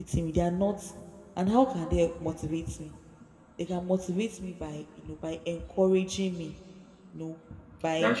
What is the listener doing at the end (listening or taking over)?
listening